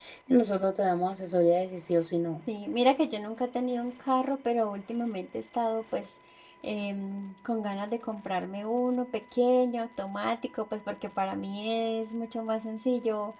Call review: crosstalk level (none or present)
none